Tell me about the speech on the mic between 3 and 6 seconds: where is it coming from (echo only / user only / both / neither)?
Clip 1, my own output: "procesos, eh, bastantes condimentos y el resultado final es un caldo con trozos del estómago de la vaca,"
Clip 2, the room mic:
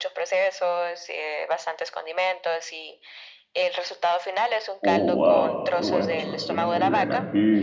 both